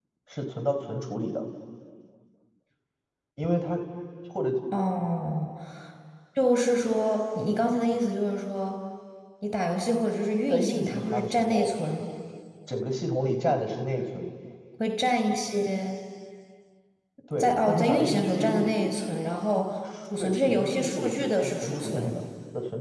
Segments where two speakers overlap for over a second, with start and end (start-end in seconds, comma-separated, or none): 10.5-11.7, 17.4-18.7, 20.2-22.2